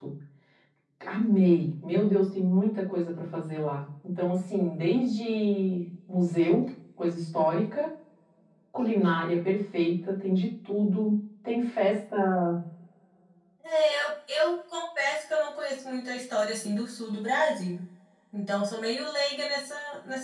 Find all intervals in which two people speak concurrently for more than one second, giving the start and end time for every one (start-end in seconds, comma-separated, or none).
none